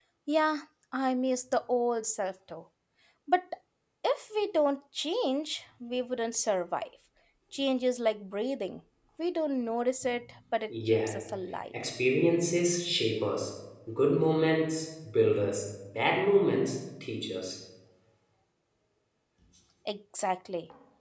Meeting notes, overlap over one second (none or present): none